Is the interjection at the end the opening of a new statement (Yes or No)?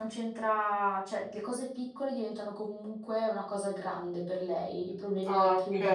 No